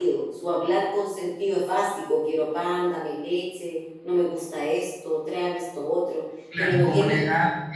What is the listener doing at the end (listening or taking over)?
taking over